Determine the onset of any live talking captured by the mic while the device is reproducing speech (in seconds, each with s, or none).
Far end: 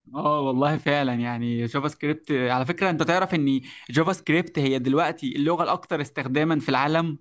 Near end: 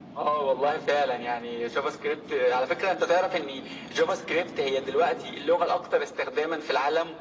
none